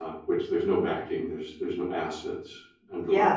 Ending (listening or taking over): taking over